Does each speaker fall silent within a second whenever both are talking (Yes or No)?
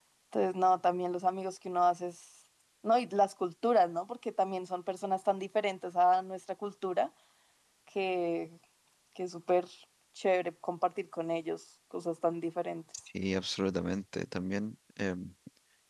Yes